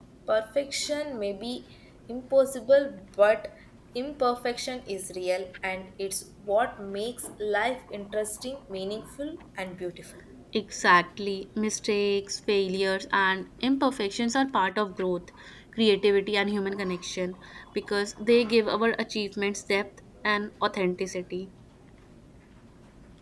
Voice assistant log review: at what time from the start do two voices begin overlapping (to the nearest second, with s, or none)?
none